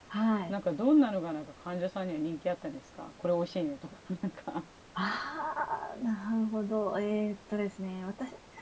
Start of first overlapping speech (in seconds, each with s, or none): none